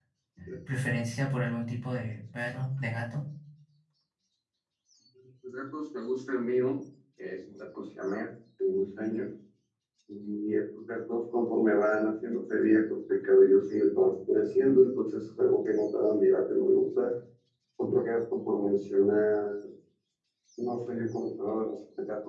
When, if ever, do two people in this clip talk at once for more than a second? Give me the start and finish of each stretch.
none

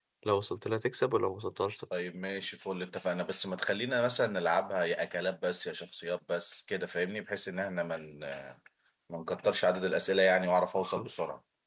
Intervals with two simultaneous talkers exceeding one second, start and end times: none

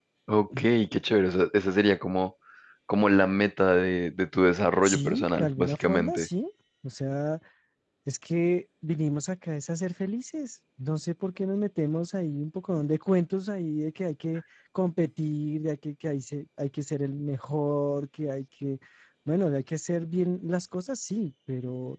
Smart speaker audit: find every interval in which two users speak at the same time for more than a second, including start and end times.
4.8-6.3

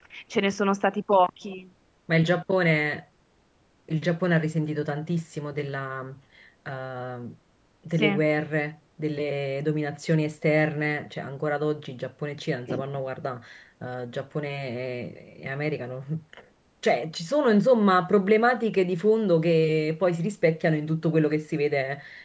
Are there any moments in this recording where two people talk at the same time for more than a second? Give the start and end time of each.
none

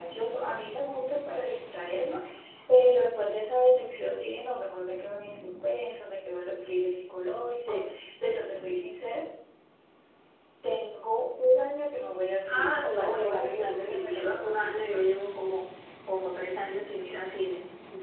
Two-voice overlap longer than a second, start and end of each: 12.5-15.2

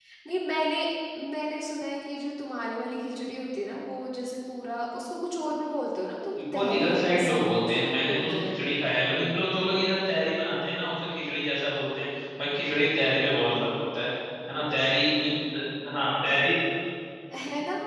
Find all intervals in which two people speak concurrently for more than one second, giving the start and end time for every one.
6.6-8.6

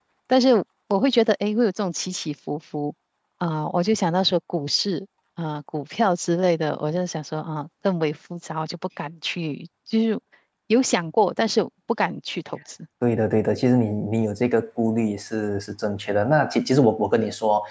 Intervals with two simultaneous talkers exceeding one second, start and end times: none

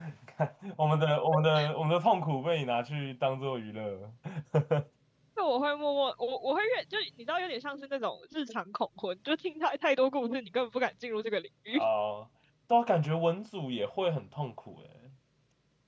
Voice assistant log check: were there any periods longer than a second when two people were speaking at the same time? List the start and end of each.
none

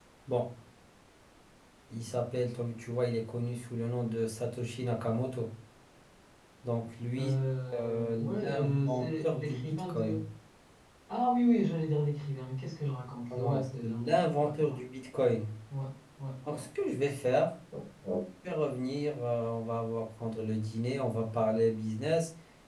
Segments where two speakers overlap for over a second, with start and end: 7.7-10.2, 13.3-14.8

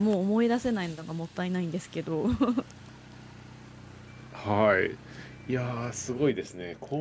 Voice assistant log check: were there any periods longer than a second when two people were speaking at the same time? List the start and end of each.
none

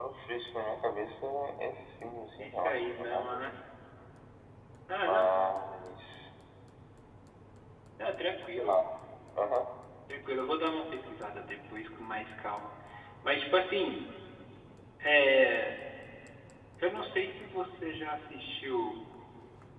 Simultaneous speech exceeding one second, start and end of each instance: 2.4-3.6

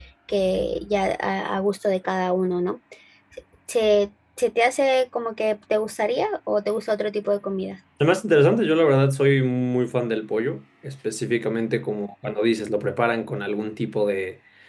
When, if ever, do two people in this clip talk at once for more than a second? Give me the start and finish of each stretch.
none

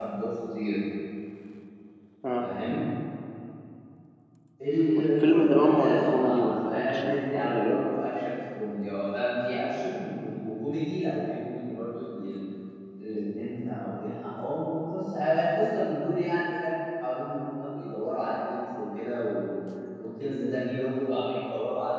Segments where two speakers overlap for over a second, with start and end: 4.9-7.8

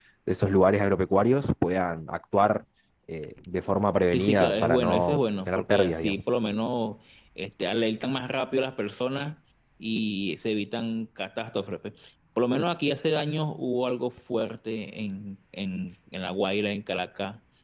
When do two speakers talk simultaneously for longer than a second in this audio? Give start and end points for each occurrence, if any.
4.1-6.2

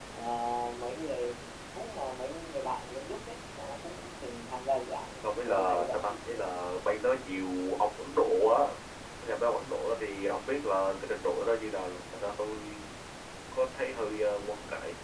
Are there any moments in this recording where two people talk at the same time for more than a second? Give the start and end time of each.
5.4-6.7

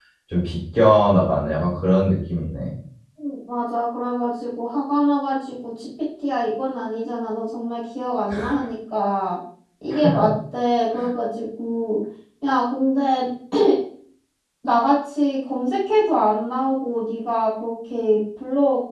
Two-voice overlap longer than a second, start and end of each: none

